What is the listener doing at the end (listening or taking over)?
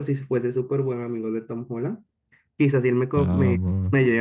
listening